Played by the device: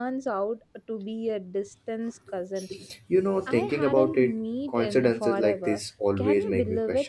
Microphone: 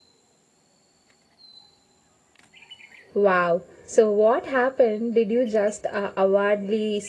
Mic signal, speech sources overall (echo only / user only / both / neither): user only